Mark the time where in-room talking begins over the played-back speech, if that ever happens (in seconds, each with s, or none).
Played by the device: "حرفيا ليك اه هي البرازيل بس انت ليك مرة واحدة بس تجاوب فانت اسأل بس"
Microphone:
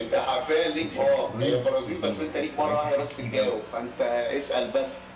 0.8 s